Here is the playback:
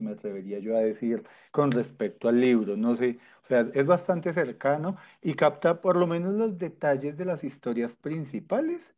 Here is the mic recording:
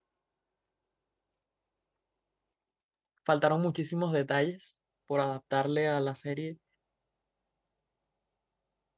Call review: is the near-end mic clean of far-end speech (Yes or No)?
Yes